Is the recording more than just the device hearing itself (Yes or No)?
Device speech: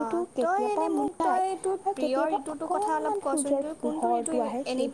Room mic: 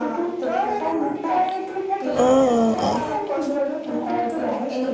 Yes